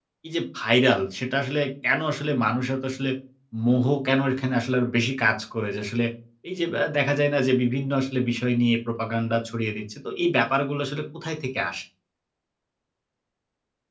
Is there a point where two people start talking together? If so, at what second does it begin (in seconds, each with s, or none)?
none